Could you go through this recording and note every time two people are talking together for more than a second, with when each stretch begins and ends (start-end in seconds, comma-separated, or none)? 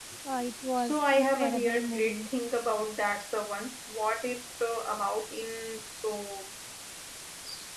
0.8-2.3